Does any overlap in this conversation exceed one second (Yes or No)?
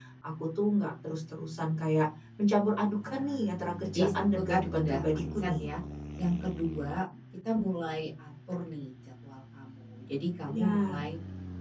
Yes